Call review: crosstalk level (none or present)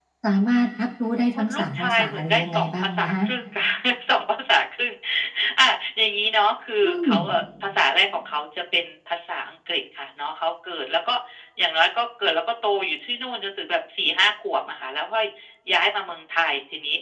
present